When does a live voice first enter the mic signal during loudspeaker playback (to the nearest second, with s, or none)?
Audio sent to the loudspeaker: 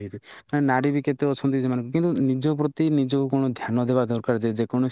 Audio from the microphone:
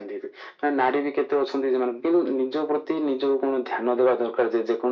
none